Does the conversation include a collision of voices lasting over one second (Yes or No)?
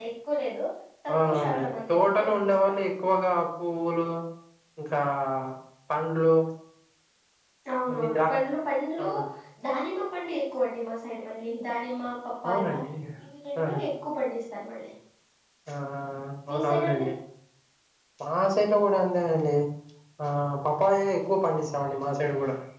Yes